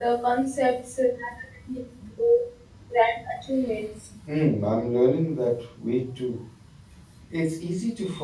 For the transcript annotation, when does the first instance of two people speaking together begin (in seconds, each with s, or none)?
none